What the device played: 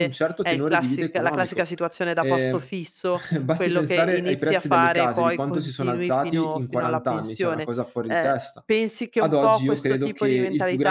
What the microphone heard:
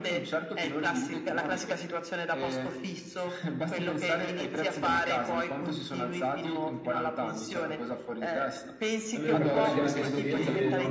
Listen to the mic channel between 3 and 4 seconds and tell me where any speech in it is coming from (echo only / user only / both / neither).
echo only